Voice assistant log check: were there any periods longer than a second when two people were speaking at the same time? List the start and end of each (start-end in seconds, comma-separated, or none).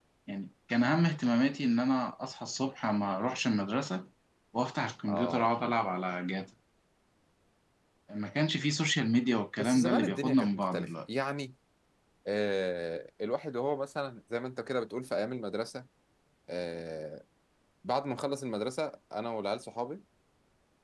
9.6-10.9